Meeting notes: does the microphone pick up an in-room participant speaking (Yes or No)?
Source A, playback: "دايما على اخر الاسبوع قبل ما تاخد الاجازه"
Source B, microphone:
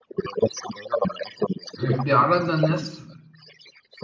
Yes